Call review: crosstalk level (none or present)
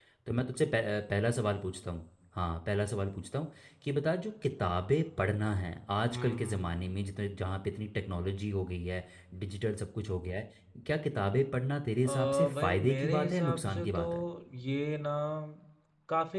present